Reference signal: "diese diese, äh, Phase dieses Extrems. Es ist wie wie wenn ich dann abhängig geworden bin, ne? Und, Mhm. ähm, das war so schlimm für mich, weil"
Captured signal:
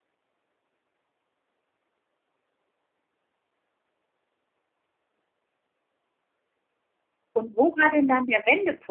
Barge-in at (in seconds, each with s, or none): 7.3 s